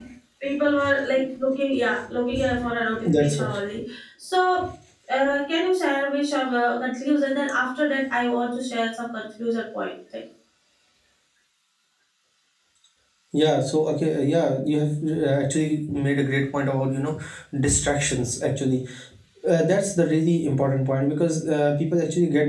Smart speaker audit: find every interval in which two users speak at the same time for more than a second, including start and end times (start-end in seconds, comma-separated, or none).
none